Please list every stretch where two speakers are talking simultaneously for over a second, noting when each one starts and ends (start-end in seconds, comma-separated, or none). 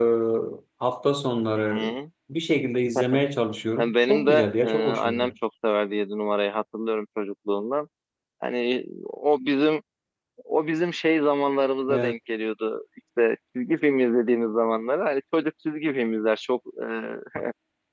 3.8-5.3